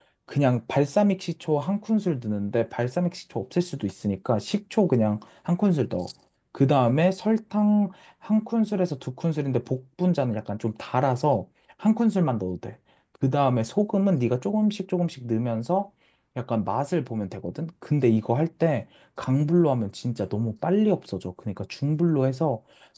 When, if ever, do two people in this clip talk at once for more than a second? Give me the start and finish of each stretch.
none

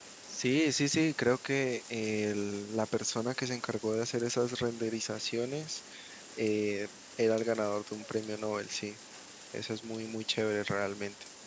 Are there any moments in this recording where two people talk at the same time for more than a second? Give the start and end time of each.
none

